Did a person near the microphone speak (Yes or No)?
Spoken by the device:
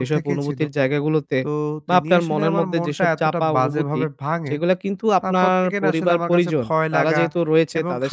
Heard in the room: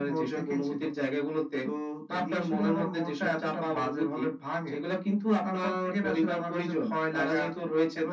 No